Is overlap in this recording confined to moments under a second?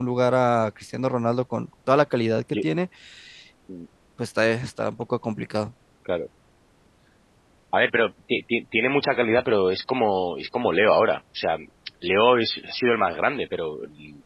Yes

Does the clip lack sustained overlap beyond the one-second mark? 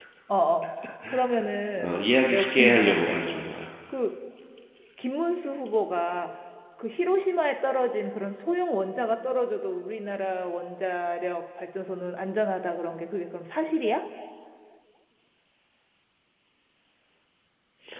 No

